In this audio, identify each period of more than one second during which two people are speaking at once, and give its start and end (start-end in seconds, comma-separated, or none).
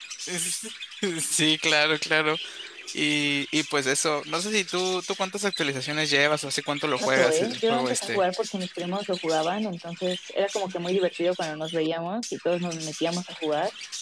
7.0-8.2